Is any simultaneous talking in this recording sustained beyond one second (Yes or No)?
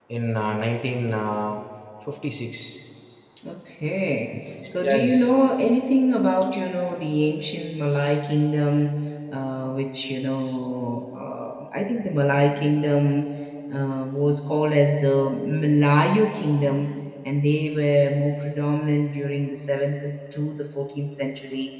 No